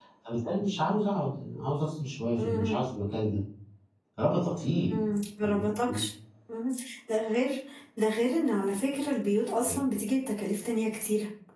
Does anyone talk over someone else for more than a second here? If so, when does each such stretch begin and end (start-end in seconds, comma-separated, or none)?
none